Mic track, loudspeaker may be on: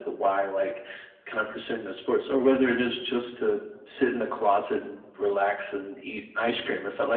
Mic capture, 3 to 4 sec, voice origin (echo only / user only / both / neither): echo only